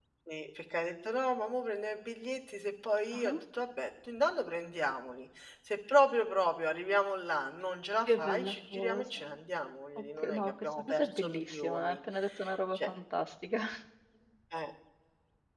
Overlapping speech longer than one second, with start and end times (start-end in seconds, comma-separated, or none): 8.1-9.4, 10.2-12.0